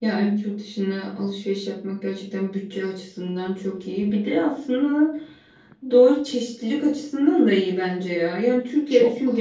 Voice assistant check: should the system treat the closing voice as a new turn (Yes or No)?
No